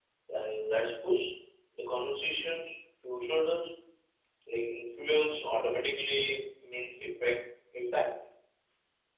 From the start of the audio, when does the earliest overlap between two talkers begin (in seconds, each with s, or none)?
none